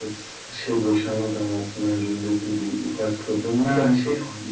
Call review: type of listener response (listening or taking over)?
listening